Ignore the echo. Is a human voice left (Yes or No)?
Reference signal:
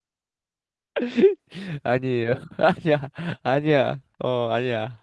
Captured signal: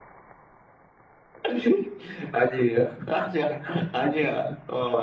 No